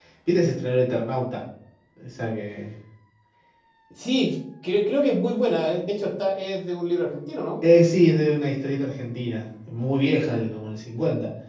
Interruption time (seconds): none

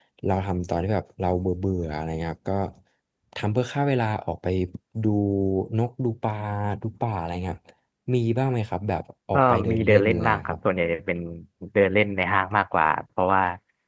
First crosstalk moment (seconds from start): 9.3 s

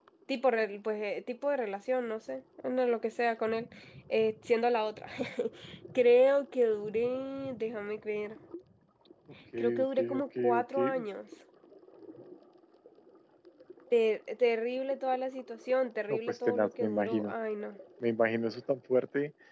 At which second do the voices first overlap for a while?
9.8 s

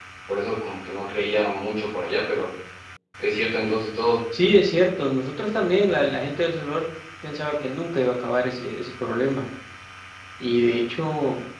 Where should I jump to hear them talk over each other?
none

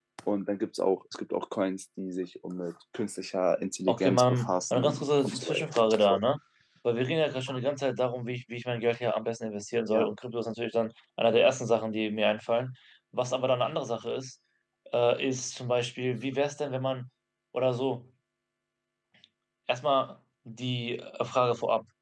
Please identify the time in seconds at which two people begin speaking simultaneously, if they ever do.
3.9 s

